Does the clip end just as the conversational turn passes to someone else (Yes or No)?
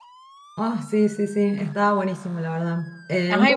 No